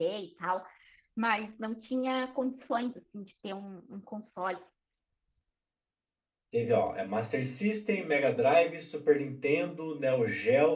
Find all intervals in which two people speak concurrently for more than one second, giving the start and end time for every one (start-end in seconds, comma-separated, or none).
none